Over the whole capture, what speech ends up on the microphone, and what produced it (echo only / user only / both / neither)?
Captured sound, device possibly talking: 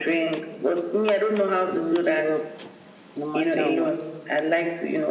both